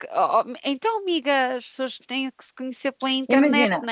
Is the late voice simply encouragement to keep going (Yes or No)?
No